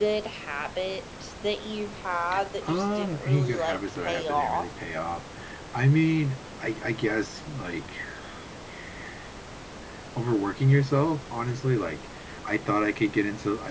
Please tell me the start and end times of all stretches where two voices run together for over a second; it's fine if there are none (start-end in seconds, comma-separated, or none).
2.6-4.7